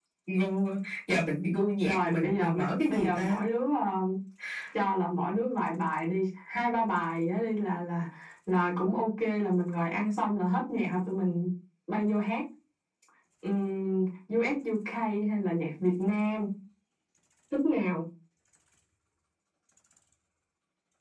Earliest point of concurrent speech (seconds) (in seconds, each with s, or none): 1.8 s